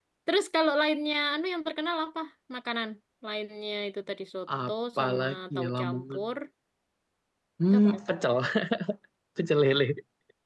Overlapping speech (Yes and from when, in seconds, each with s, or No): Yes, from 4.7 s